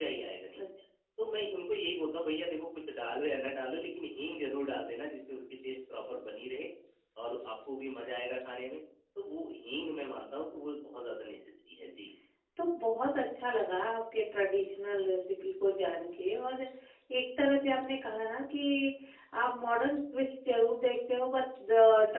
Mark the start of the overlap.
none

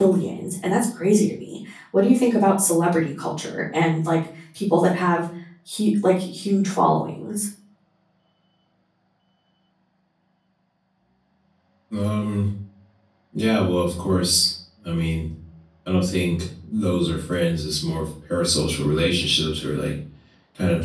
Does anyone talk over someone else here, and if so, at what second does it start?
none

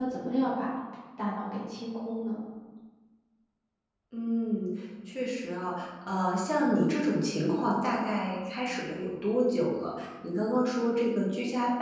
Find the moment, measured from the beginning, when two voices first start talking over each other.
none

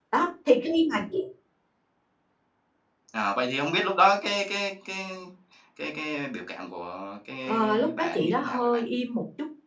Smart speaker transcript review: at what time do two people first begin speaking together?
7.5 s

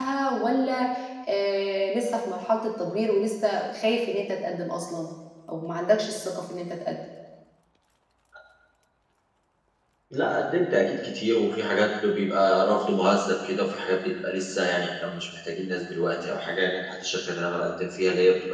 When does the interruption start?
none

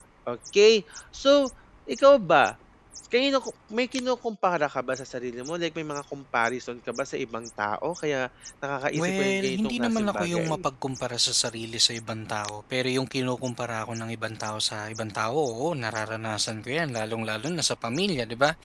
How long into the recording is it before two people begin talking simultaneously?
9.0 s

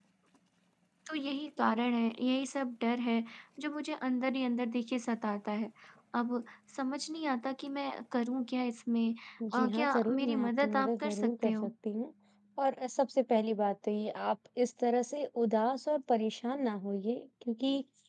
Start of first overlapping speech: 9.5 s

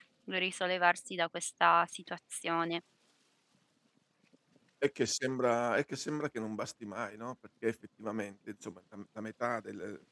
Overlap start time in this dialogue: none

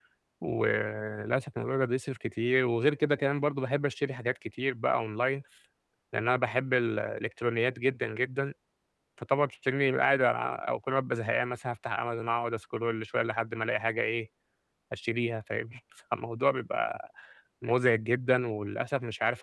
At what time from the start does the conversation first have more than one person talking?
none

